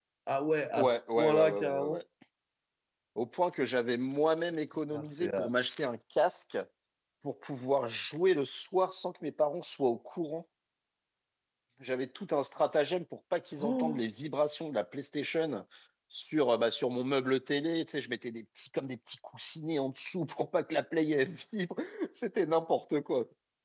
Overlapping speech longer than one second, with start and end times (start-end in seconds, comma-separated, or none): 0.8-2.0